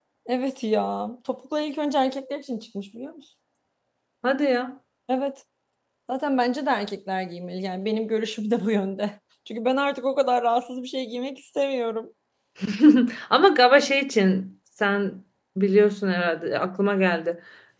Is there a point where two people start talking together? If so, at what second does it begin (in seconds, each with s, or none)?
none